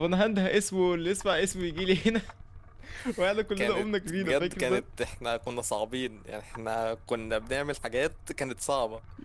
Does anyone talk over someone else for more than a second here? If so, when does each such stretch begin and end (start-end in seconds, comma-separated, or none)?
3.6-4.8